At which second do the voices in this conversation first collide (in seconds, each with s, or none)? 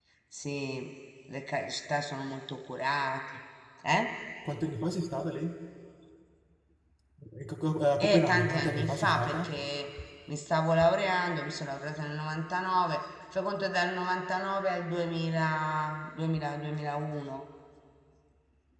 8.0 s